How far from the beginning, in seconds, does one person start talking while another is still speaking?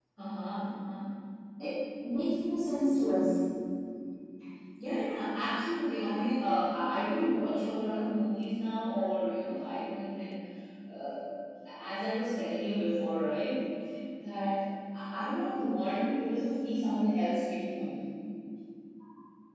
none

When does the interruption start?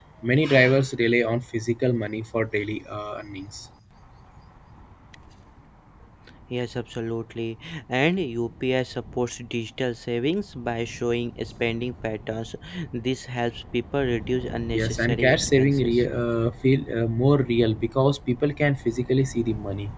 15 s

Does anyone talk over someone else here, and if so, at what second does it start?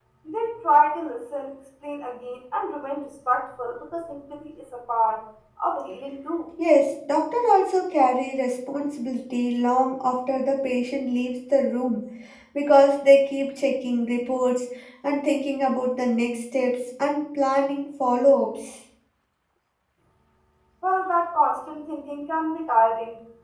none

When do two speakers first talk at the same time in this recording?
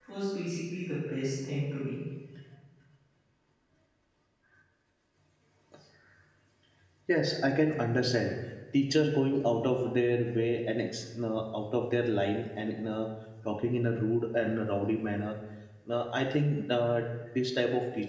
none

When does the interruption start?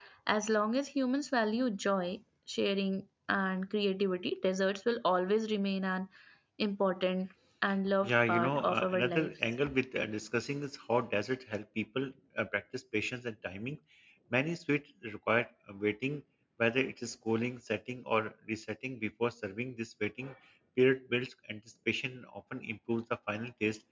8 s

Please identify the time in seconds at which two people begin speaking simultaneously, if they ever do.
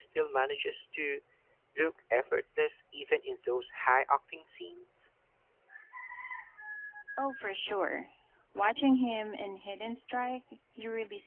none

